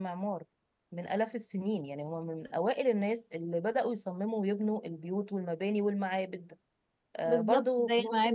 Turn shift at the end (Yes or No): Yes